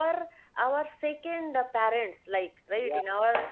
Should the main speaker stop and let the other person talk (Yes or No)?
No